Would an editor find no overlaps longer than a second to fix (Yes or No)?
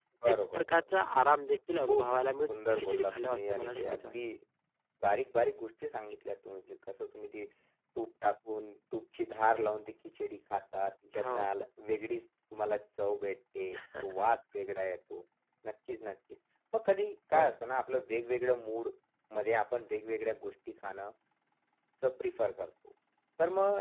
No